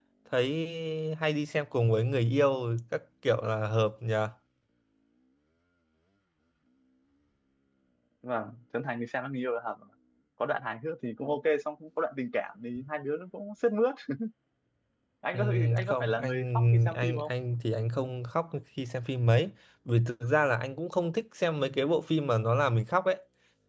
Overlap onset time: 15.3 s

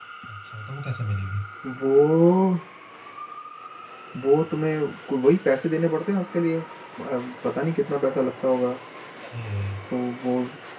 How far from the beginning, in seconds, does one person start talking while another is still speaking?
none

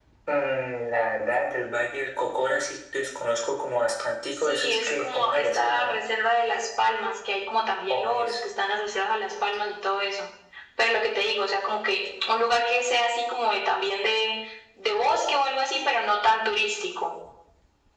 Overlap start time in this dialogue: 4.5 s

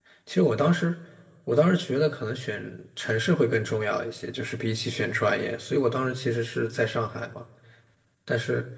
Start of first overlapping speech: none

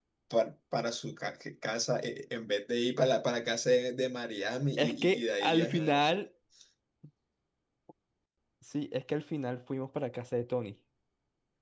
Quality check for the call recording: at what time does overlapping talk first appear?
4.8 s

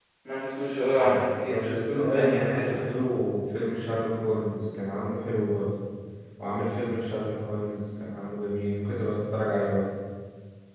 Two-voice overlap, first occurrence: 0.9 s

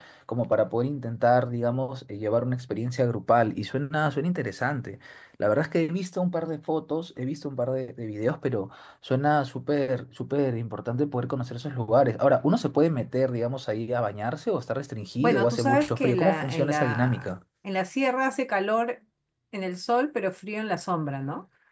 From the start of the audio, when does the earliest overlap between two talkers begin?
15.2 s

